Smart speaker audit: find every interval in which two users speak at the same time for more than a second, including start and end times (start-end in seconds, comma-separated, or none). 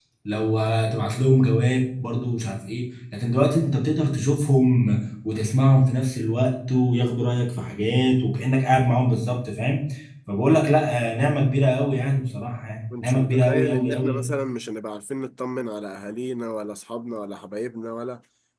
13.0-14.3